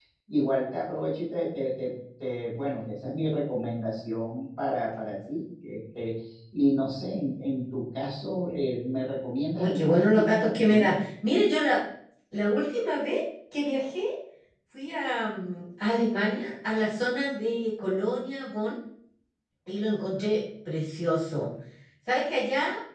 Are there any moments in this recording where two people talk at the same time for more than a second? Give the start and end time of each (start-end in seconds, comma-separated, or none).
9.6-11.0